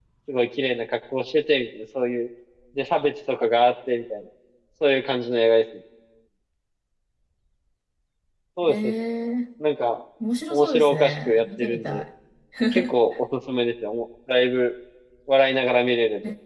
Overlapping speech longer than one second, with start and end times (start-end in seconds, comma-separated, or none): 10.5-12.0